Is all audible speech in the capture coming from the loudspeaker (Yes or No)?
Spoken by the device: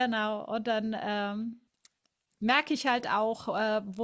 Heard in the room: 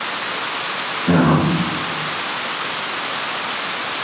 No